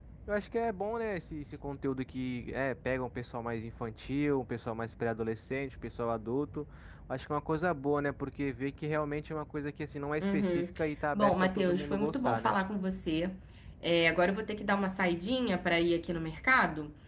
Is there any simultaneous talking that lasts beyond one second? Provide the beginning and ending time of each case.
11.1-12.6

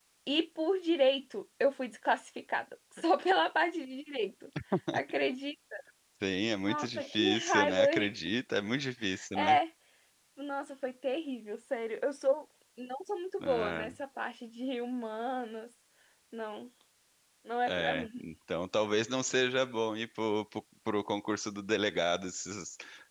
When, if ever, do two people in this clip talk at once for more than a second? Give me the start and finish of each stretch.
6.7-7.9

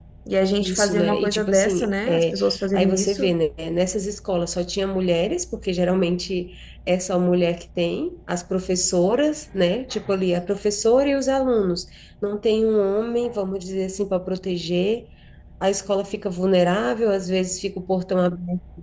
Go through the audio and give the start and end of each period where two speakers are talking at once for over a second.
0.6-3.2

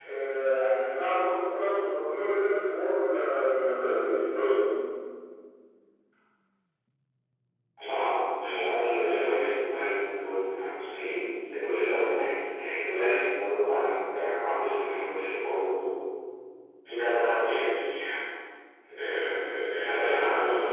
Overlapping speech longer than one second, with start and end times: none

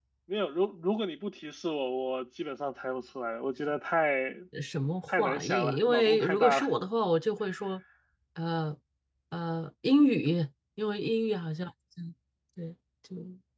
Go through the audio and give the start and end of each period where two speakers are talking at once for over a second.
5.1-6.7

